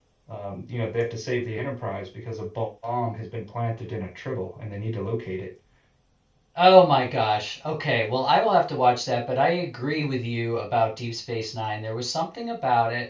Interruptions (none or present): none